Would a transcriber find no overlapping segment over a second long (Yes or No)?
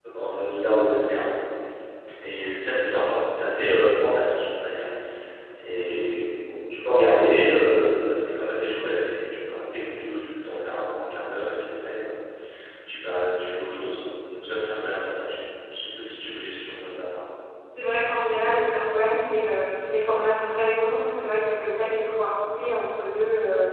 Yes